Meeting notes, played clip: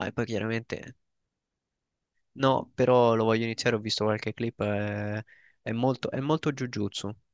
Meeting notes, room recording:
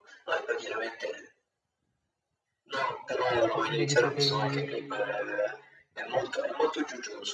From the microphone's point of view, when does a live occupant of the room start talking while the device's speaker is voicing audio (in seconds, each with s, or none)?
3.5 s